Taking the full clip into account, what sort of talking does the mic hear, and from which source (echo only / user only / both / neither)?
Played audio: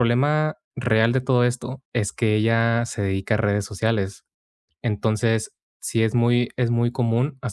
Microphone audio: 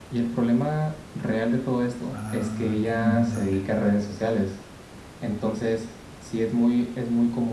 both